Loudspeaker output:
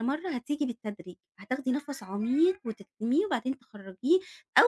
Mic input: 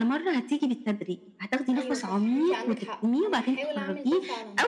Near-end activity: present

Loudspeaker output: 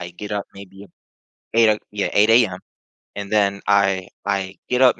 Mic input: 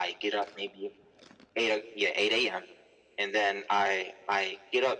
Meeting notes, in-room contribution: none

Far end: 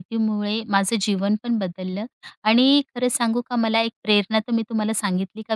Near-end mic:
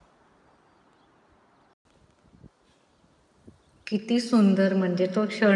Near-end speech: present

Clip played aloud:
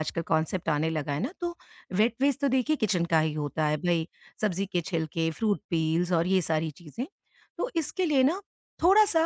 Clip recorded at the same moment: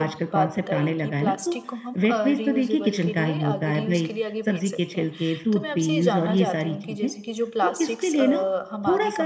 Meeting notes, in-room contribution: present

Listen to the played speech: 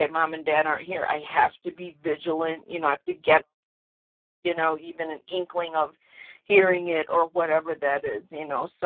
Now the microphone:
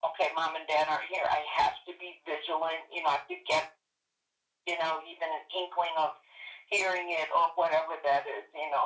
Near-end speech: none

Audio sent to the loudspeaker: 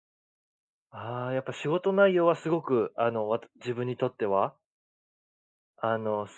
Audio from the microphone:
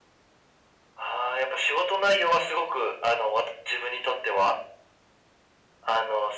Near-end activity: none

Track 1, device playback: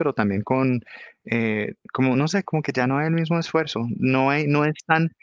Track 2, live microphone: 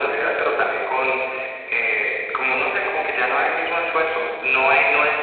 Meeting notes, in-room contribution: none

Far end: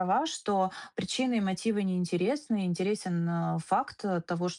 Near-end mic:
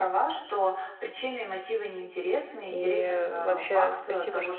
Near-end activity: present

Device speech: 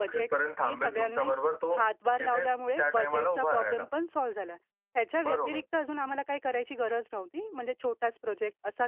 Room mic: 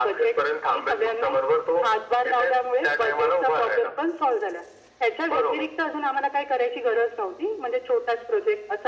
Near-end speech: none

